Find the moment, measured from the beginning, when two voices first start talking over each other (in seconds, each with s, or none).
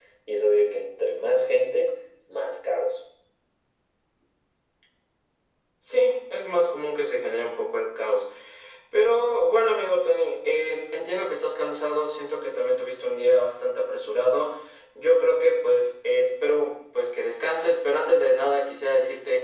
none